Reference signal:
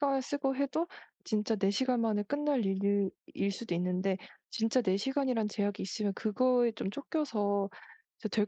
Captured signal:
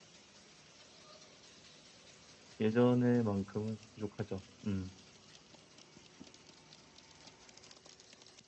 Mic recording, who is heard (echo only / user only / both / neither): user only